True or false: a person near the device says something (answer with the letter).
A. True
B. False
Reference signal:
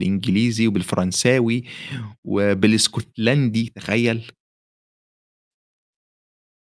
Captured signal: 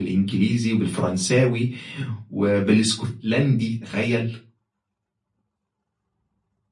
B